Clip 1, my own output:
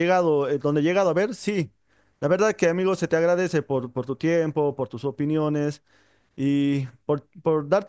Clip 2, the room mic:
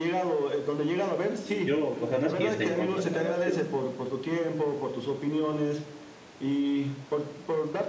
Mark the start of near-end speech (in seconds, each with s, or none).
1.4 s